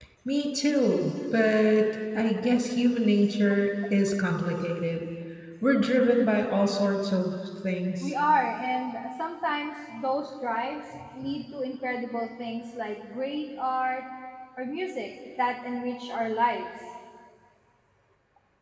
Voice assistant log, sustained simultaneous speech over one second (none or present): none